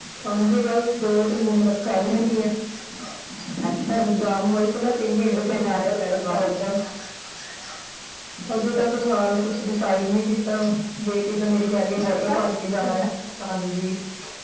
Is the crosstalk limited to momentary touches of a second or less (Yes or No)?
No